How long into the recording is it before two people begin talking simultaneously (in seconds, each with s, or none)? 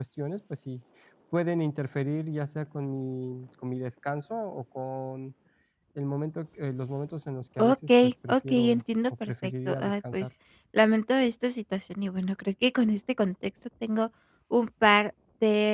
7.6 s